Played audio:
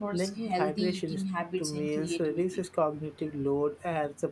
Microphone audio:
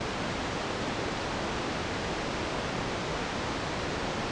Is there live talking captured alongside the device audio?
No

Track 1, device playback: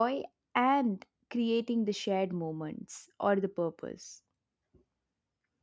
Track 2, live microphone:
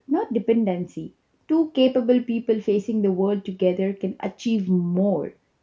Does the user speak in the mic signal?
Yes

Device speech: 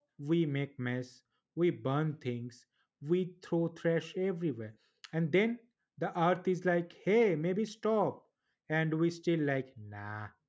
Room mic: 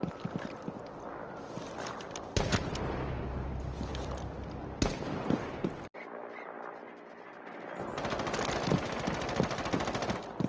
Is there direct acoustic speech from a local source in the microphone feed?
No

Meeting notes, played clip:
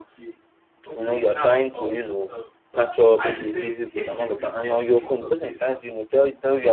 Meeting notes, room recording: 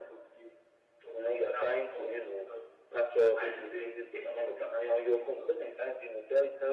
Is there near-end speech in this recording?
No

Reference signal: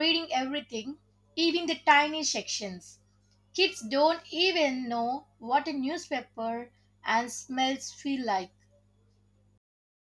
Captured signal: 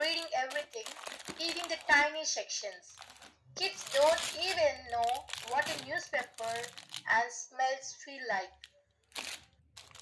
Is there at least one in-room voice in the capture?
No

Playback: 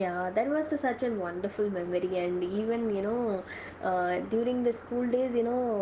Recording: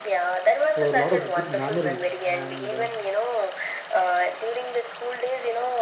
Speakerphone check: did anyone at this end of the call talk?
Yes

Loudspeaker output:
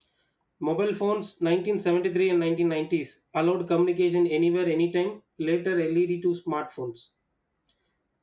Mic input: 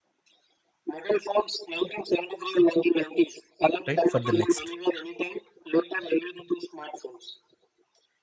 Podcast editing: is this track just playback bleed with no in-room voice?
No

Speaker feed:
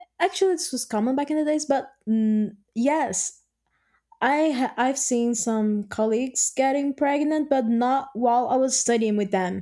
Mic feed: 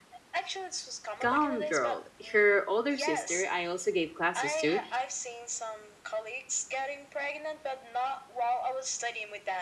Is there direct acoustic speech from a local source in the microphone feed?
Yes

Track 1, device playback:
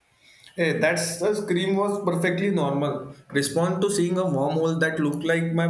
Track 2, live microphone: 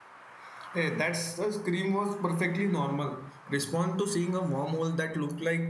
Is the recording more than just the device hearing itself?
No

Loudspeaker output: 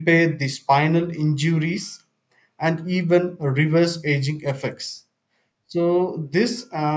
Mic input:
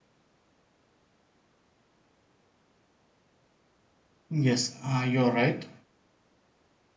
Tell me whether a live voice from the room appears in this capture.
Yes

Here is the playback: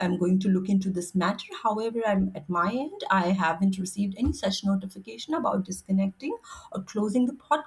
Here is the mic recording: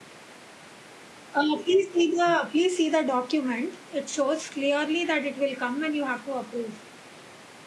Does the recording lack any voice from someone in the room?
No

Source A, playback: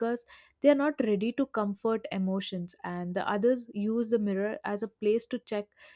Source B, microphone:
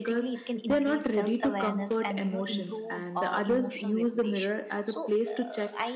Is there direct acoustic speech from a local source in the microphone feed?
Yes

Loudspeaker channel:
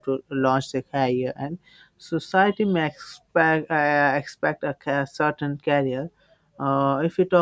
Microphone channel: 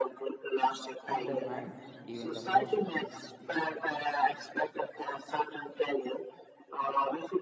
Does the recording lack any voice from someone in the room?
No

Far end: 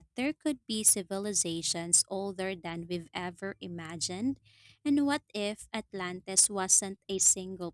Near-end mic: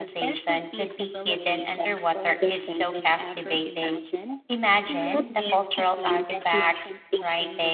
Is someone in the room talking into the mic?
Yes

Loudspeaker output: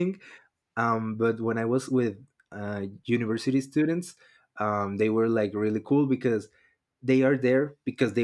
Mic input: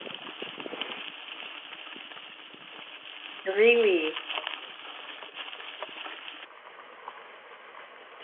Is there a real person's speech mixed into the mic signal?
Yes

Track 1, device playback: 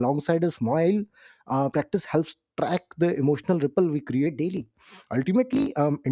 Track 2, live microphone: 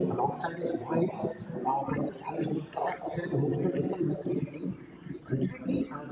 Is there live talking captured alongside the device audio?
No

